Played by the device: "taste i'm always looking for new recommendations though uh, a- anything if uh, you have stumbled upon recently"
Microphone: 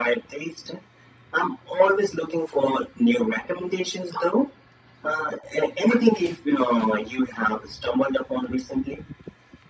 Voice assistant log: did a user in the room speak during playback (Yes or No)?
No